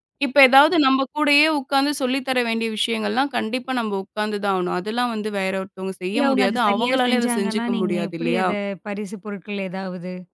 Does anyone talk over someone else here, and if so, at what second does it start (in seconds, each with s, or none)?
6.1 s